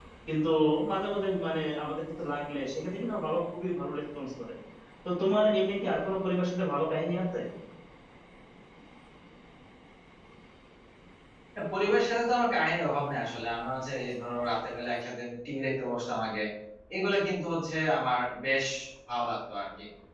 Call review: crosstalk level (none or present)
none